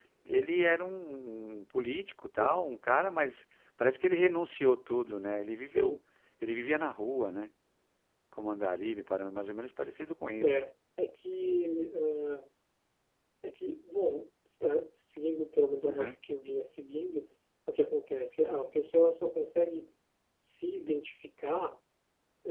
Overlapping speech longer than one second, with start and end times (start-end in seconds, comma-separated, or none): none